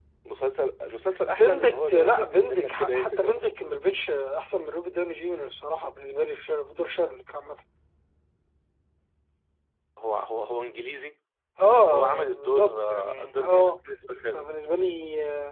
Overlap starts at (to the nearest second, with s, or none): 1 s